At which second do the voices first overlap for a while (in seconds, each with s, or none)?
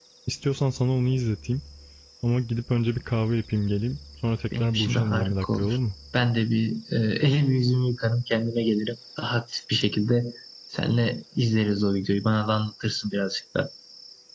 4.5 s